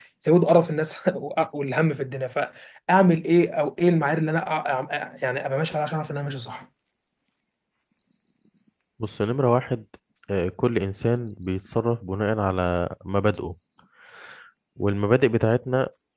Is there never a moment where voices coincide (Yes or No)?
Yes